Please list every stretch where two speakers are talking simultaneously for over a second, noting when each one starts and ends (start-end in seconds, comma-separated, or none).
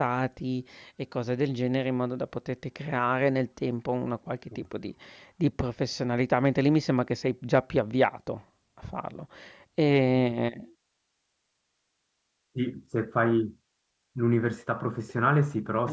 none